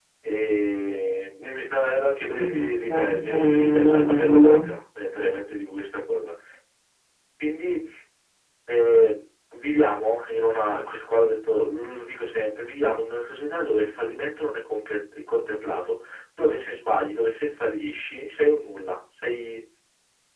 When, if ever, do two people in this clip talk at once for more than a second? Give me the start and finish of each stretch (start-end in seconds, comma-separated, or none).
2.5-4.7